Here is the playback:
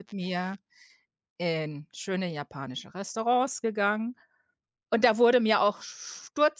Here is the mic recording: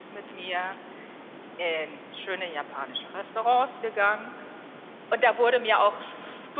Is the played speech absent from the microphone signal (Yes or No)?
No